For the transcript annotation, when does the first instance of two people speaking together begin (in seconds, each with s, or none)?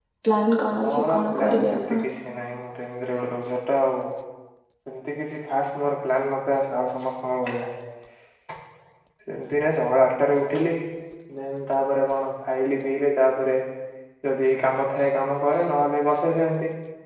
0.8 s